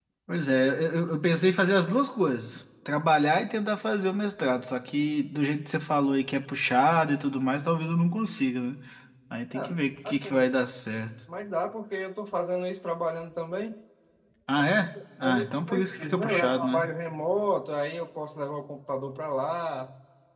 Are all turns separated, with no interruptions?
No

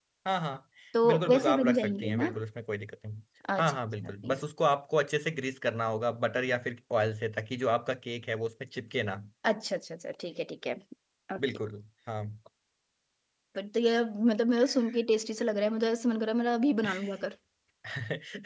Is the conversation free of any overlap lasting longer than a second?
No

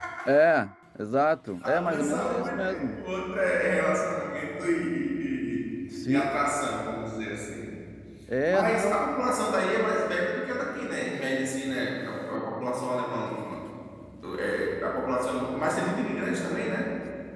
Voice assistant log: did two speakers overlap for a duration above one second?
Yes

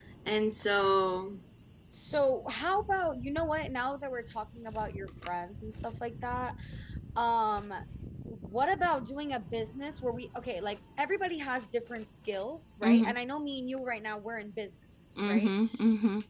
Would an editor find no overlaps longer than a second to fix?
Yes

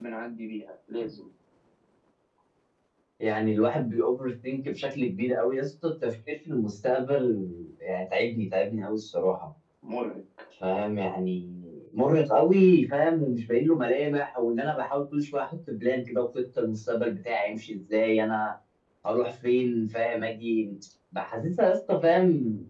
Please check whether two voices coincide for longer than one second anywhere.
No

